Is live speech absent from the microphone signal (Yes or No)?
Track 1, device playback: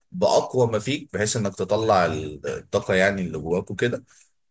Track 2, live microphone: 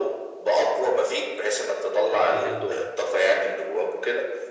No